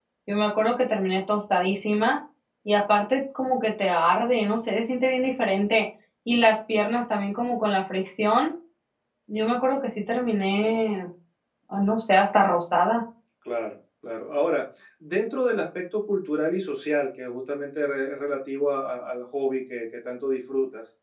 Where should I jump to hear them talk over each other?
none

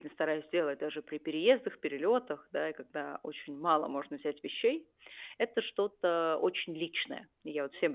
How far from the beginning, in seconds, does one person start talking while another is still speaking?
none

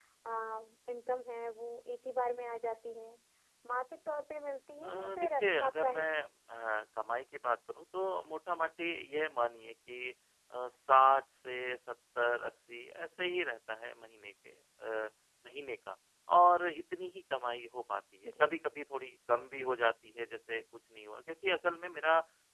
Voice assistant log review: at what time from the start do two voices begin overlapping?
4.8 s

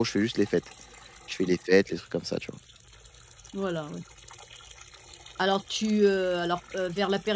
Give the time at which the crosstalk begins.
none

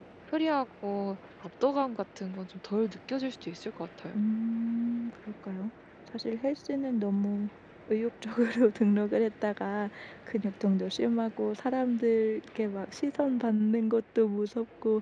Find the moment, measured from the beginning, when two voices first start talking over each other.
none

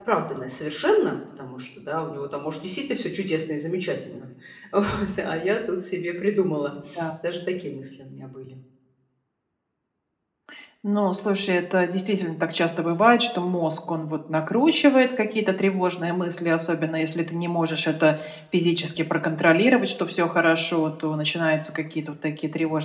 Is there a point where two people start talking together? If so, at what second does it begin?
none

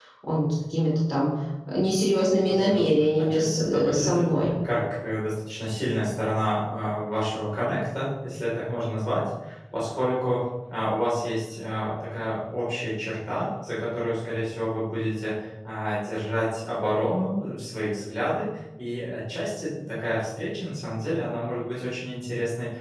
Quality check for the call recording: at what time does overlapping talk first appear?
2.5 s

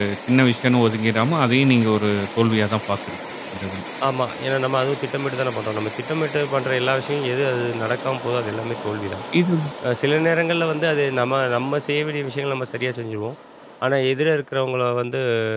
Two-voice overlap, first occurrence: none

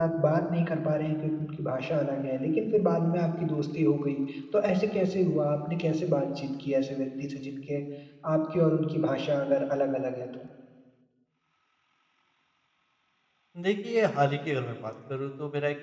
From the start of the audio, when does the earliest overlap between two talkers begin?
none

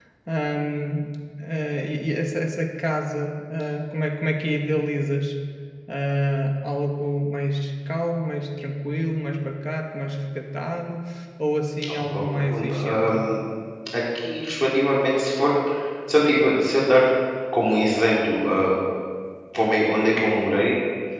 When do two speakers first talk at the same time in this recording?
11.9 s

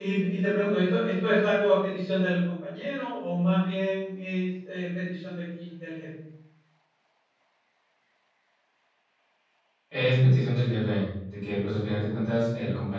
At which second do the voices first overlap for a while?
none

